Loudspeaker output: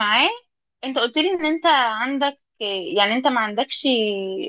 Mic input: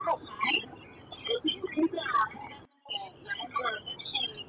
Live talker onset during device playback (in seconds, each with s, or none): none